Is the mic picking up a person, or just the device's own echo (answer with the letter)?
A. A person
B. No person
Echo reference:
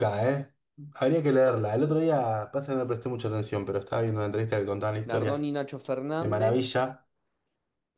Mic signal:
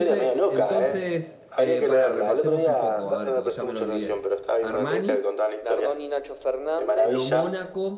A